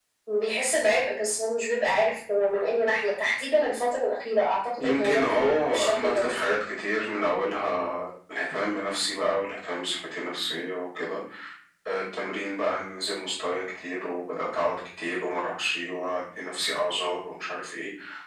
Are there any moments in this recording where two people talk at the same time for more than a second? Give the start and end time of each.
4.8-6.6

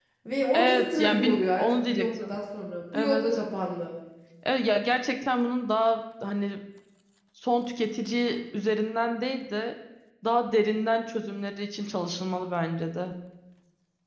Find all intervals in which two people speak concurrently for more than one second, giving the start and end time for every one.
0.5-2.4

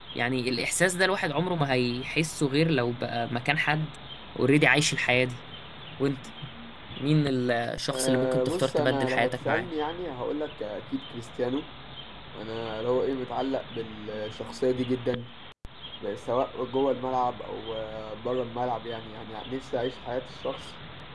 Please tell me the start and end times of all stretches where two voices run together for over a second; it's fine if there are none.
7.9-9.7

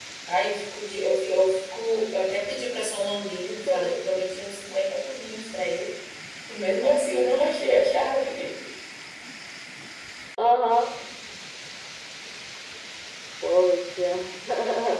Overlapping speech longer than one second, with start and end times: none

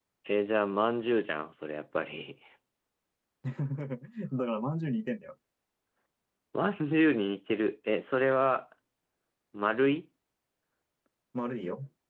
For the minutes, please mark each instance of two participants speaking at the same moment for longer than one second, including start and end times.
none

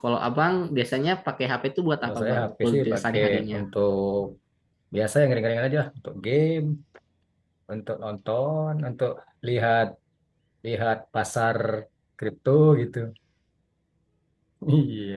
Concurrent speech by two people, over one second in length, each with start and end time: 2.0-3.6

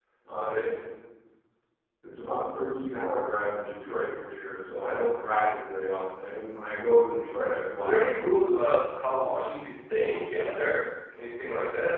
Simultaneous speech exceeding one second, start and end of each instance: none

